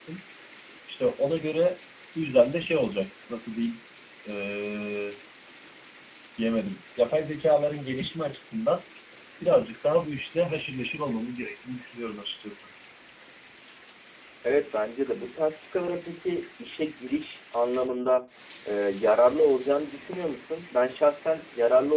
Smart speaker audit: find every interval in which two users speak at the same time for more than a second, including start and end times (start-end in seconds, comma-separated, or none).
none